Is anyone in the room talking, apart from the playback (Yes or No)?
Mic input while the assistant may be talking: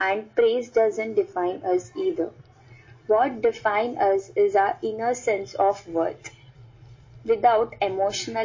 No